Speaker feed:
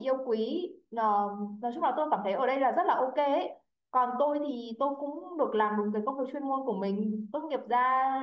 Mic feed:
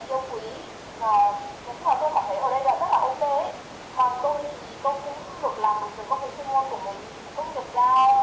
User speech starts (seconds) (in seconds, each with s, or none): none